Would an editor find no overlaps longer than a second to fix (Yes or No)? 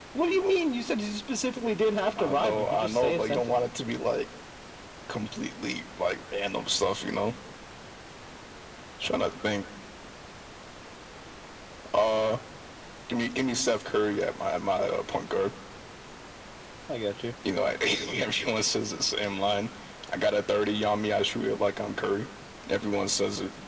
No